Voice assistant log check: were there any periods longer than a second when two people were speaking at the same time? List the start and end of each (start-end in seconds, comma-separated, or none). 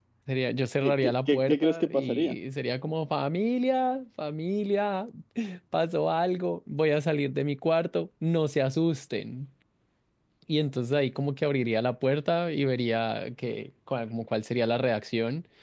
0.8-2.4